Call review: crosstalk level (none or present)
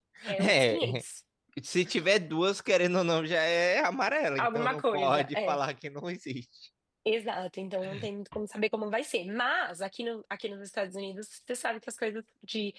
present